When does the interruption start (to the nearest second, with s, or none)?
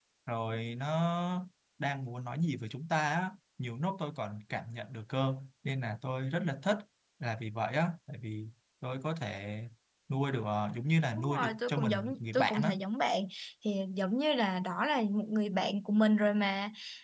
11 s